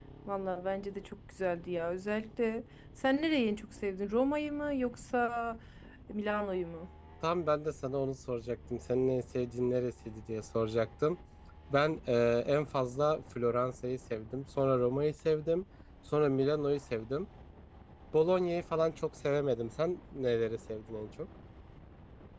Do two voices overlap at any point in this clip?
No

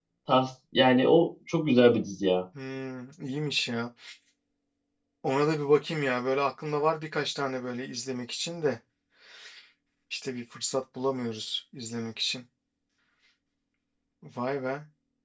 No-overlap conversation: Yes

